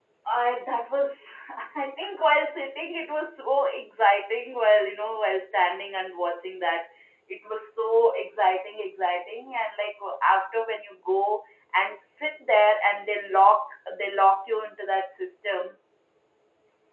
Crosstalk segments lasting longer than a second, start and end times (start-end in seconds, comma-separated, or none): none